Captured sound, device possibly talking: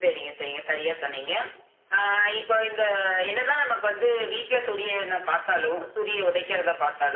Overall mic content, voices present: echo only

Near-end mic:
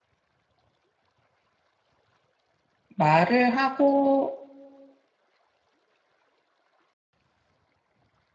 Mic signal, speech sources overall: user only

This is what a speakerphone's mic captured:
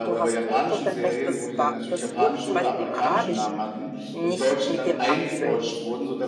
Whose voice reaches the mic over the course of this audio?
both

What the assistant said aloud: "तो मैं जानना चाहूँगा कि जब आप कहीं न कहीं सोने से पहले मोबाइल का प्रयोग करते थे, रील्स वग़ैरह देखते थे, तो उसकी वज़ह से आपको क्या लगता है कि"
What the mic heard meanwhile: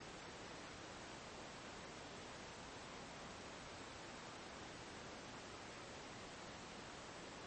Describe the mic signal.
neither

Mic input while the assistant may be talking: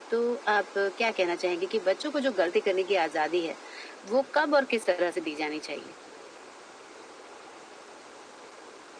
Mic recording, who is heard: echo only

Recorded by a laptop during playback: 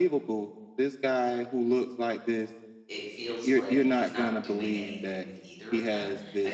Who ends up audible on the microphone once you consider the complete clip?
both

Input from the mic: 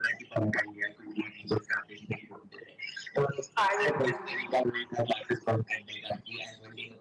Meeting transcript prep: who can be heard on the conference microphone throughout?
both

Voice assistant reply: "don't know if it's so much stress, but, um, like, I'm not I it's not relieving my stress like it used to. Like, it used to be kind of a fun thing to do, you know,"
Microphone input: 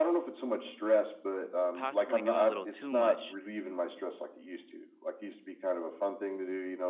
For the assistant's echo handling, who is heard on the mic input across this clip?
both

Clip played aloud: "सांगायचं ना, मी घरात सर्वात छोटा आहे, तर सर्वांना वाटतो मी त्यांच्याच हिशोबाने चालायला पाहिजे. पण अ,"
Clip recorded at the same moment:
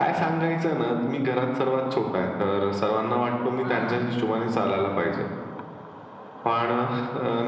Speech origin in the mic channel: both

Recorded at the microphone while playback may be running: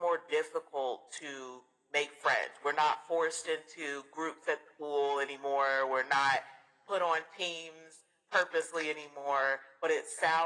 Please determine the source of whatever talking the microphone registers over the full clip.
echo only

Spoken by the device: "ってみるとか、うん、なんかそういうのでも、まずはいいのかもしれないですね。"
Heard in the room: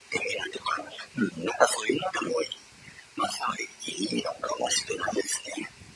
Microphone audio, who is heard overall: echo only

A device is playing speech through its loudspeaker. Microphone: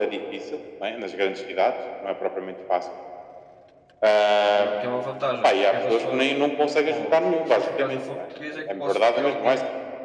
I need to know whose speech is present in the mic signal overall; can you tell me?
both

